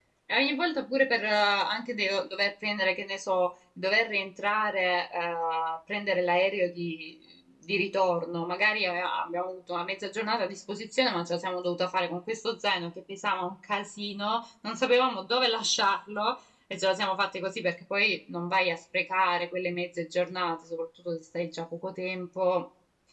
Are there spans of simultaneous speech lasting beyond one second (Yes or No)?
No